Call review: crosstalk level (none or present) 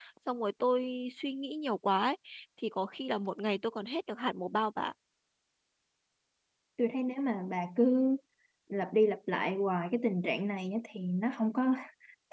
none